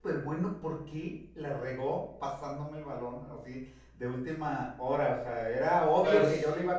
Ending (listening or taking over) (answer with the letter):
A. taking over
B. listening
B